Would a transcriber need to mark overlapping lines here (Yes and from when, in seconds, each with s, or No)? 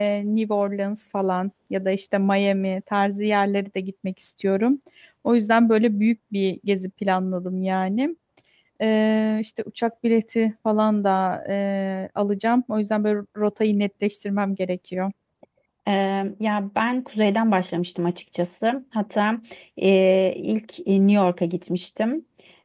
No